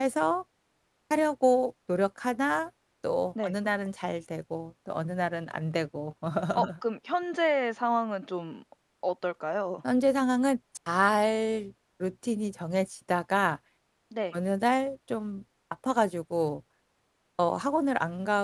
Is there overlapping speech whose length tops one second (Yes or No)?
No